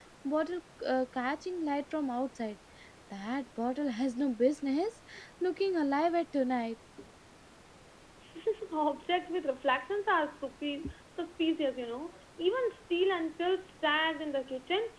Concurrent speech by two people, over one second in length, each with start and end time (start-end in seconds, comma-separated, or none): none